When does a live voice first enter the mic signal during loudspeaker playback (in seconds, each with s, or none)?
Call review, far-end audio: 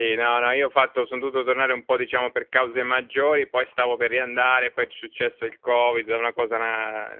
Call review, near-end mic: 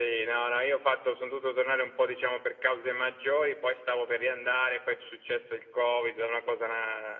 none